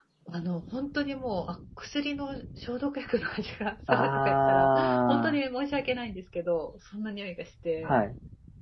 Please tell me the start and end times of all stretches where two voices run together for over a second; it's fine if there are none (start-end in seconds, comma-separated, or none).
3.9-5.4